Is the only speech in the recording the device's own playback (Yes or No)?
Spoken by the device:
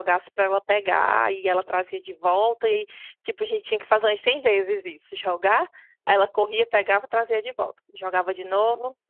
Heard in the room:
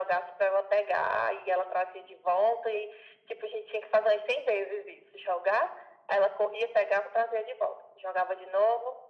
Yes